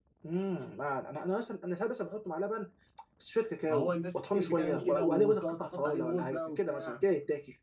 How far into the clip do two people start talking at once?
3.7 s

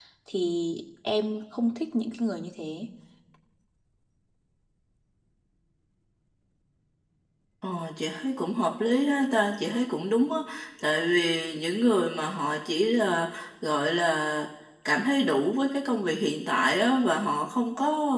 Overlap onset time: none

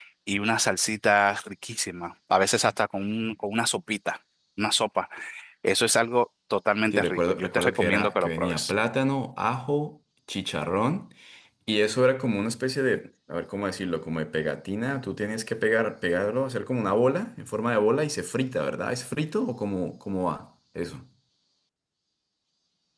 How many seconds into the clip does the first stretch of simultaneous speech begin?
6.9 s

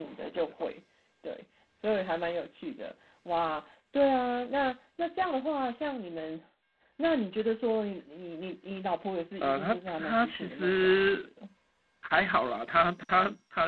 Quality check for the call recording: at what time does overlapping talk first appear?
9.4 s

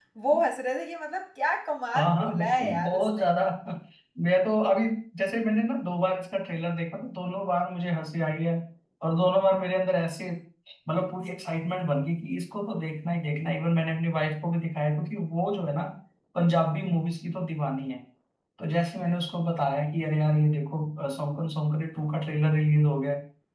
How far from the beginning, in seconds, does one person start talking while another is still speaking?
1.9 s

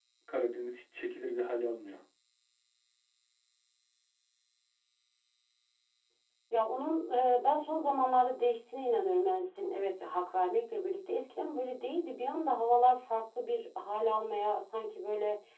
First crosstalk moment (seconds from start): none

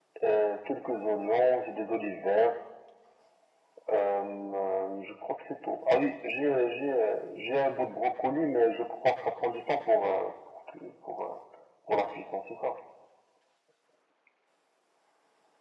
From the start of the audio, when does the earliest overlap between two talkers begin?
none

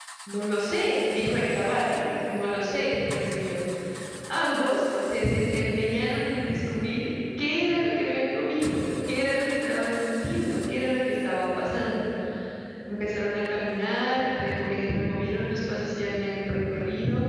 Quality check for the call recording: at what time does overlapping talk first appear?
none

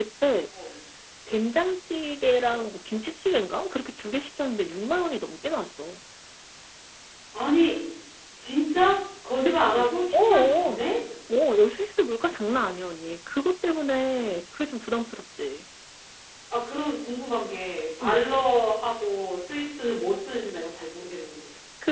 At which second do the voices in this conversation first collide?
9.4 s

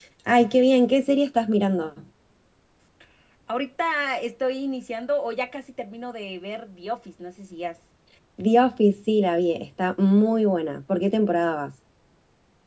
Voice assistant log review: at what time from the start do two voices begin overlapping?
none

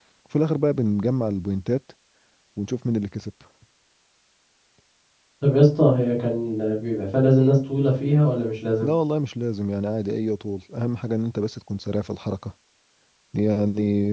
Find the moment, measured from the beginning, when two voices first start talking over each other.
none

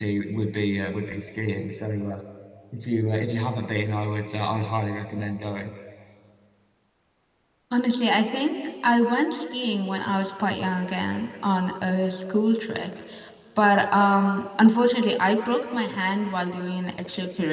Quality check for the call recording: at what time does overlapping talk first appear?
none

